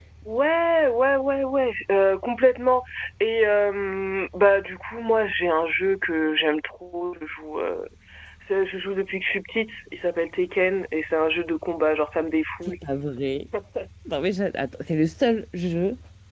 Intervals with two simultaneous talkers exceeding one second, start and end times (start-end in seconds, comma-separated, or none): none